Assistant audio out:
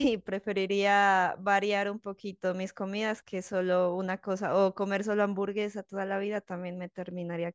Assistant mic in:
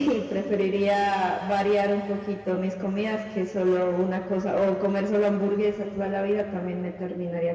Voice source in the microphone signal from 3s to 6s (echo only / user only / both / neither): echo only